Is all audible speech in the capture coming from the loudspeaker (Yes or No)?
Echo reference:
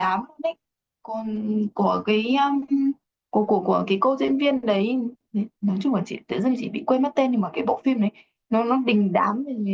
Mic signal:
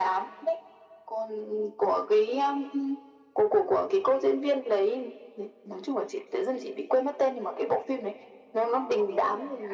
No